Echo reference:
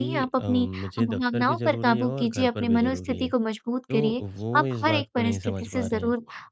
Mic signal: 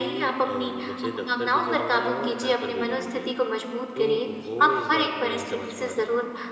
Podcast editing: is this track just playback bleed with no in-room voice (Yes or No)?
Yes